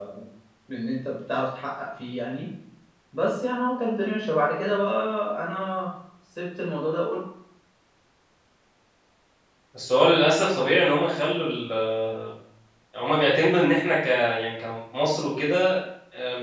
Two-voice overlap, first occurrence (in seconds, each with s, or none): none